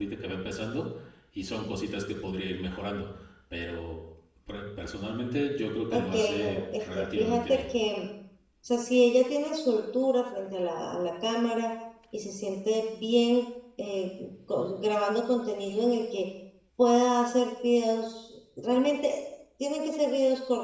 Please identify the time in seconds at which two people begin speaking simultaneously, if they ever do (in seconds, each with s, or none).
5.9 s